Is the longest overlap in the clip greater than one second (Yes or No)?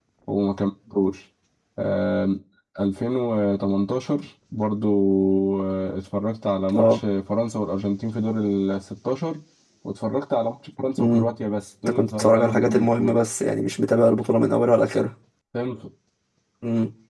Yes